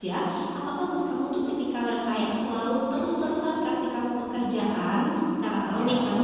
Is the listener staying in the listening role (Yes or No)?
Yes